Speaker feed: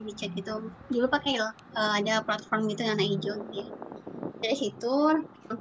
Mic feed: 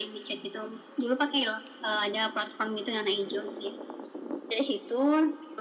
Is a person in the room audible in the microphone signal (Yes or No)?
No